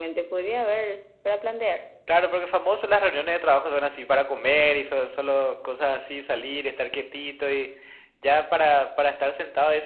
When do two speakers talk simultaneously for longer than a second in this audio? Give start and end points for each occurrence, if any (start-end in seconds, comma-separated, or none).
none